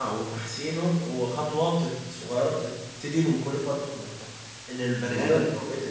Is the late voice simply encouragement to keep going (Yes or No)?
Yes